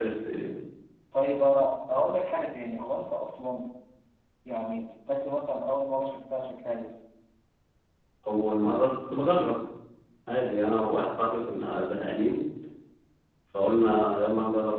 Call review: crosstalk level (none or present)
none